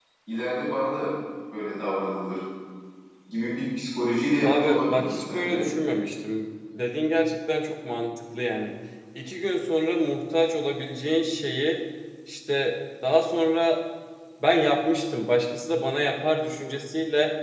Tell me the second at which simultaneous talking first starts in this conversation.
4.4 s

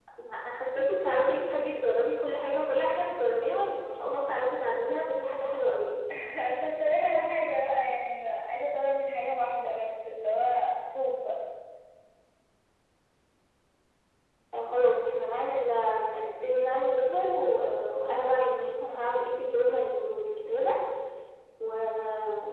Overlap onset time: none

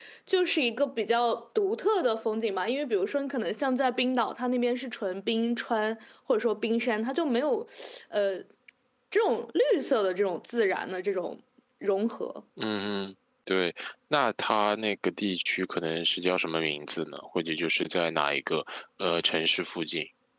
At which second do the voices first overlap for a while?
none

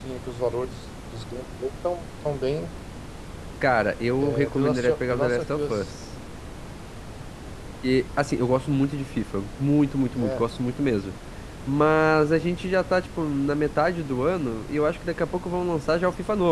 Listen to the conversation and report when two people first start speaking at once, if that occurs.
4.2 s

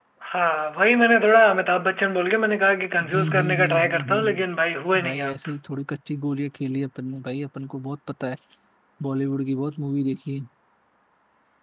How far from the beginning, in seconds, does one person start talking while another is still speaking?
3.0 s

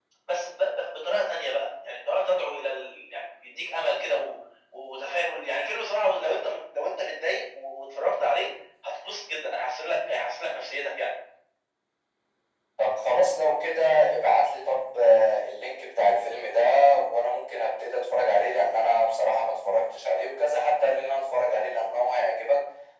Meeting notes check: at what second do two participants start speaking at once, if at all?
none

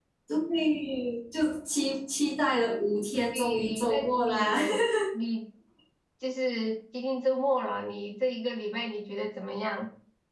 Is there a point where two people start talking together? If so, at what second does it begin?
3.3 s

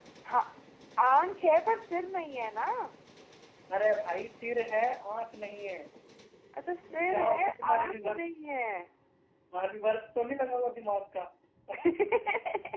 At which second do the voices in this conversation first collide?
6.9 s

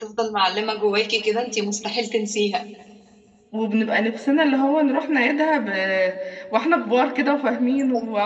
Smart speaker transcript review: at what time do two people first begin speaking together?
none

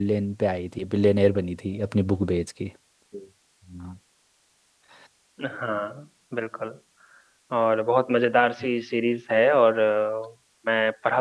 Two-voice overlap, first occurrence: none

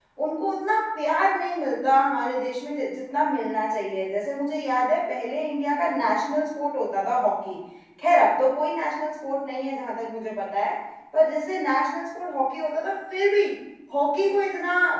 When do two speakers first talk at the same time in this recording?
none

